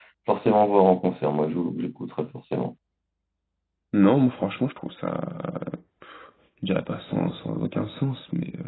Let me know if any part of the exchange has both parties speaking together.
No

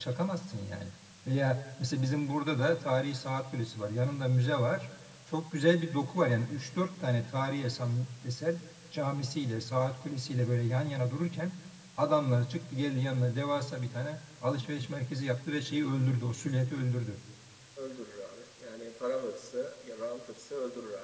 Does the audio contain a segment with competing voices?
No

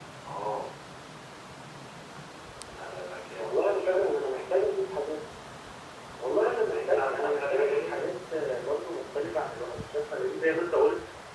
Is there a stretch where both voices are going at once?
Yes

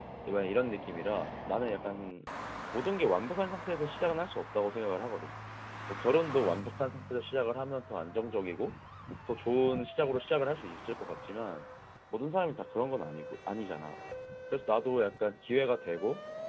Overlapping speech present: No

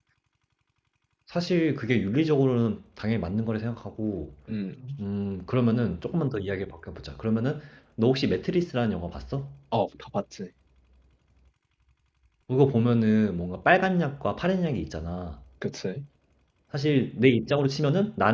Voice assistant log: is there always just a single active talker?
Yes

